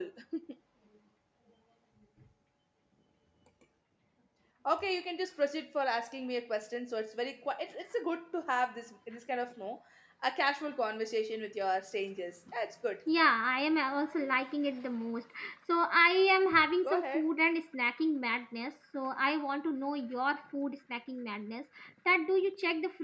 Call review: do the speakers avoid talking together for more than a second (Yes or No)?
Yes